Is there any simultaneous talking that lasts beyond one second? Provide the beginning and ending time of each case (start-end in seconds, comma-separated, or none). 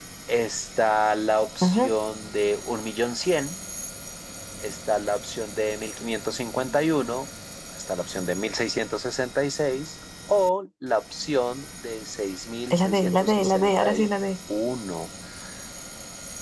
12.7-14.1